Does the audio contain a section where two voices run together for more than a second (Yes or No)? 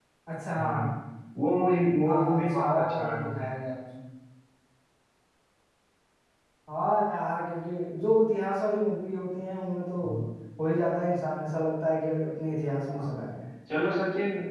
Yes